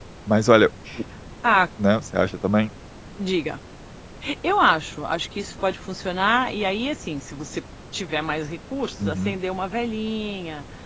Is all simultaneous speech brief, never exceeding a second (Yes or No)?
Yes